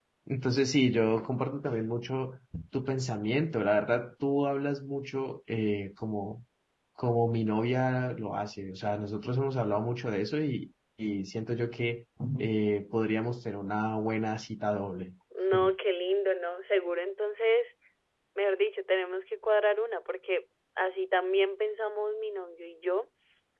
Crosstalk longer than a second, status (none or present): none